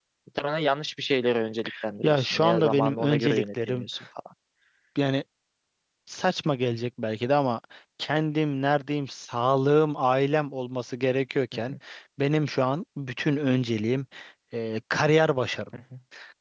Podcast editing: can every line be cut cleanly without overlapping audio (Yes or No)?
No